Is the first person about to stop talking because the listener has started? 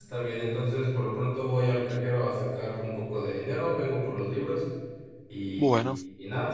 No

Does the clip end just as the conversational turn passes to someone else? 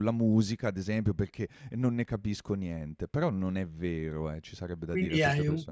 Yes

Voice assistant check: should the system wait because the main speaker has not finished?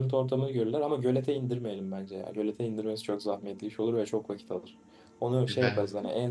Yes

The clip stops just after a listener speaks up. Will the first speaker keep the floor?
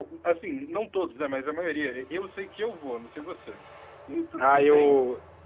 No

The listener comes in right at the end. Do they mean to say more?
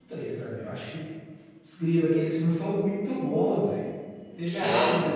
No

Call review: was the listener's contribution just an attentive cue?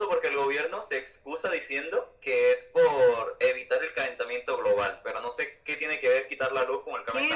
No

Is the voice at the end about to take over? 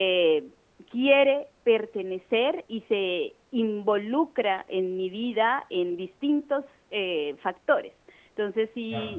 No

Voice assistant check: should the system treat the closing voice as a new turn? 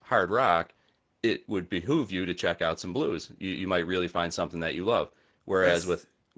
No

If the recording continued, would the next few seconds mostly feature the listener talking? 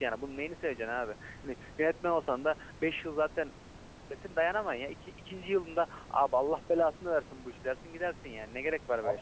Yes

